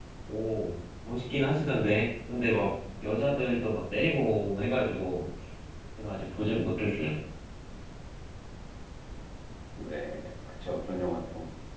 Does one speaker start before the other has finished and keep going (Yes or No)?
No